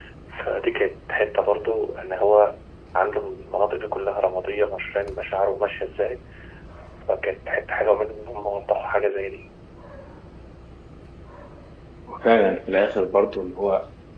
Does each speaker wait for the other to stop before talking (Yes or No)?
Yes